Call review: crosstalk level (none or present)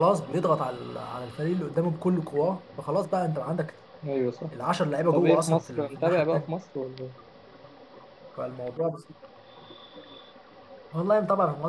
present